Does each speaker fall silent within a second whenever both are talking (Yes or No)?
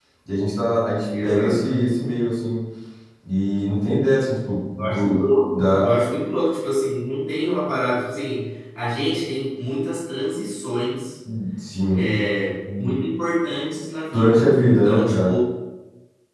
No